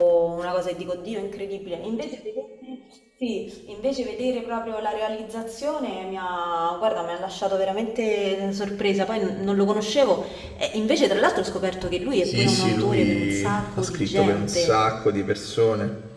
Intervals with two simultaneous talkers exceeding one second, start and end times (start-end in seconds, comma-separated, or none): 12.2-14.8